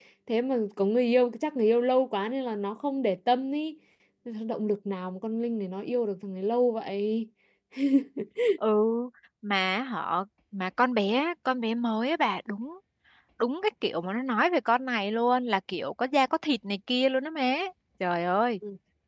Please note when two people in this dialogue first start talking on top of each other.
none

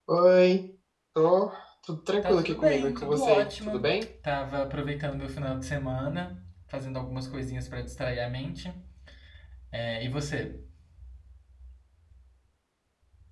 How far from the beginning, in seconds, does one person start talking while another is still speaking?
2.2 s

